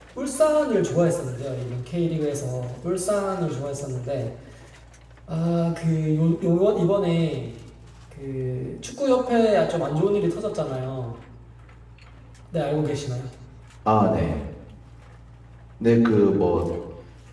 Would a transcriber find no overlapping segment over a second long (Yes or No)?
Yes